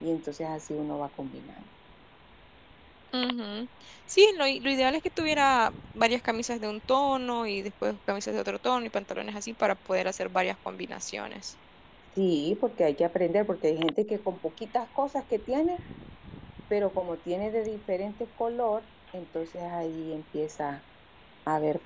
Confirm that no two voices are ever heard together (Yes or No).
Yes